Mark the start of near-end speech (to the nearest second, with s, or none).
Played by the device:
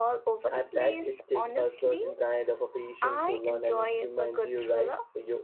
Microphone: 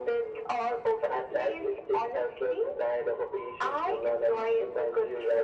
none